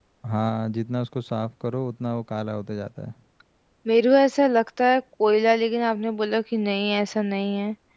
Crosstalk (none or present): none